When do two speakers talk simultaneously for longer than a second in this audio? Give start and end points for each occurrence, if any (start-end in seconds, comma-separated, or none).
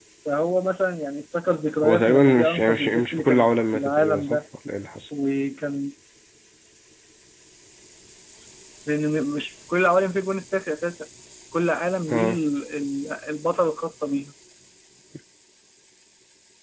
1.8-4.4